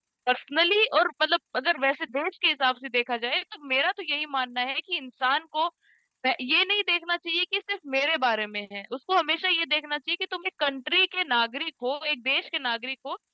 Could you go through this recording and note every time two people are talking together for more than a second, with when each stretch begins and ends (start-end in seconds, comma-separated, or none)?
none